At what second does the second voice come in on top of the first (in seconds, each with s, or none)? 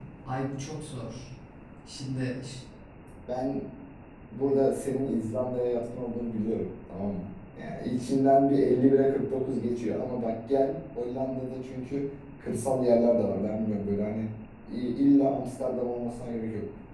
none